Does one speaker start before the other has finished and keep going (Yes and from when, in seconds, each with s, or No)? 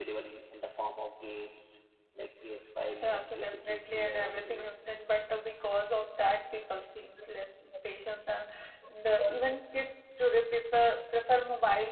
Yes, from 2.8 s